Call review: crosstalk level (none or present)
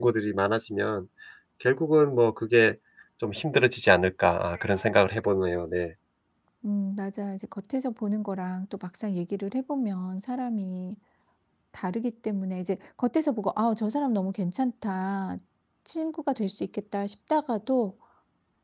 none